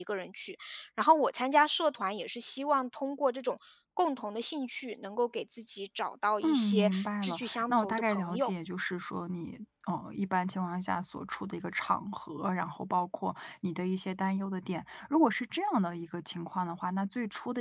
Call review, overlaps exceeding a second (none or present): present